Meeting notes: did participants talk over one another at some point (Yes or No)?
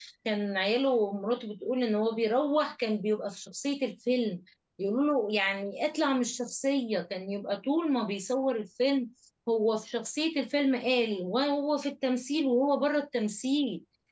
No